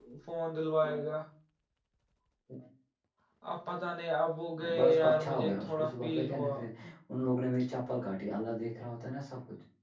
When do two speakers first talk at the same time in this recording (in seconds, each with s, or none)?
4.6 s